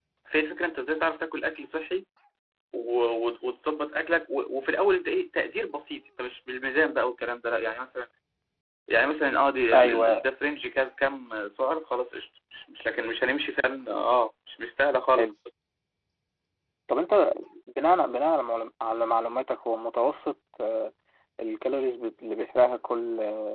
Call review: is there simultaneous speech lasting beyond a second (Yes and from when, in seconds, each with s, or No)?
No